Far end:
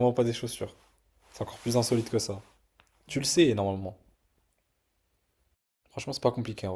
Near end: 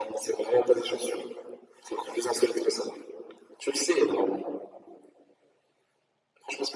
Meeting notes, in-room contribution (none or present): none